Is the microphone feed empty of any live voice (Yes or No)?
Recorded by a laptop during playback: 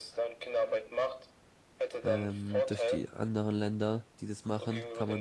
No